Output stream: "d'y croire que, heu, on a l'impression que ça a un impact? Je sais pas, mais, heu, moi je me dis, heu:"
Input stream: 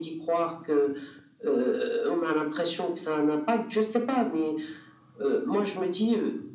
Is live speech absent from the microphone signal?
Yes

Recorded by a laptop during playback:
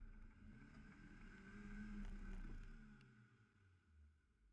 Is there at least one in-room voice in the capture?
No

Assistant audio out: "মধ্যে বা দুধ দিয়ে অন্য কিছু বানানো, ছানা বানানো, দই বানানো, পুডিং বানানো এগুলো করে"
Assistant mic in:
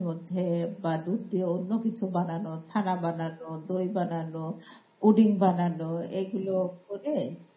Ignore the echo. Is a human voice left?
No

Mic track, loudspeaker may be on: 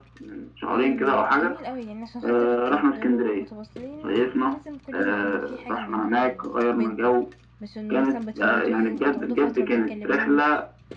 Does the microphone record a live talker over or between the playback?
Yes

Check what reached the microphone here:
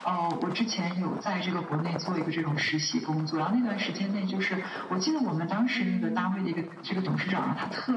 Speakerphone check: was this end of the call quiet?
No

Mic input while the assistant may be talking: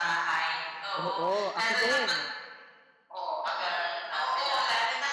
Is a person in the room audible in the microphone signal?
Yes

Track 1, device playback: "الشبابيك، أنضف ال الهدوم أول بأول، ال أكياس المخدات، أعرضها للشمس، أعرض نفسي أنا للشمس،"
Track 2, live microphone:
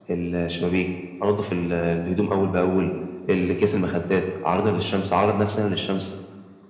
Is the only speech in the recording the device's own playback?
Yes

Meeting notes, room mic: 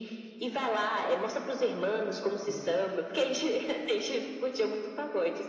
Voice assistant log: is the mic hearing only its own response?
No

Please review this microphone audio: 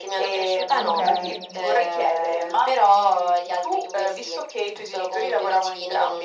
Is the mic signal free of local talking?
No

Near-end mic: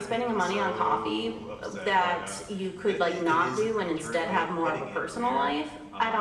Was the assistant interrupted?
No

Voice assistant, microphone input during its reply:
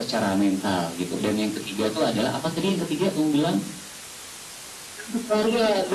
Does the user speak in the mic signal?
No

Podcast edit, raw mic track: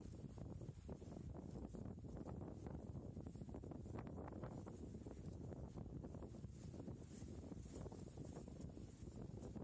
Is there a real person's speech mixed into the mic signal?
No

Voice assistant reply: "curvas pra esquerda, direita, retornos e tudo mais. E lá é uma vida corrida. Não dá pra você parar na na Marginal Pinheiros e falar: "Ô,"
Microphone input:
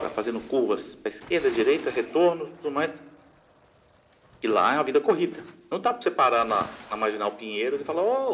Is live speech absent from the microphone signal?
Yes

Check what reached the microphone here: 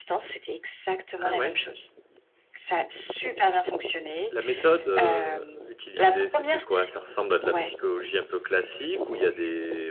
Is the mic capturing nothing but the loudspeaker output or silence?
No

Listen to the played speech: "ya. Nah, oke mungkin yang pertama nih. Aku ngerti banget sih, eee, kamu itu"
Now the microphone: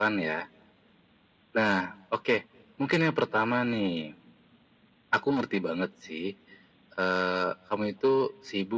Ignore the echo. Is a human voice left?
No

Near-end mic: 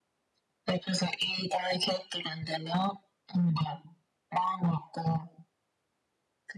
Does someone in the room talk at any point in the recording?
No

